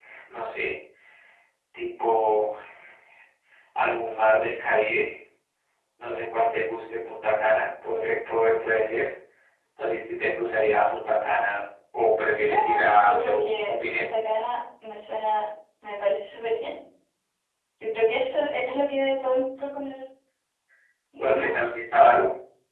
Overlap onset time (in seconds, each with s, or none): 12.4 s